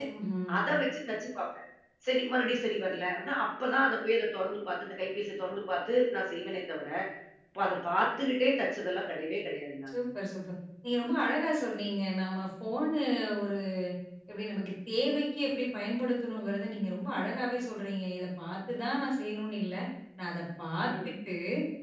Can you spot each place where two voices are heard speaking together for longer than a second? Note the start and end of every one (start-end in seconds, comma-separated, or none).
none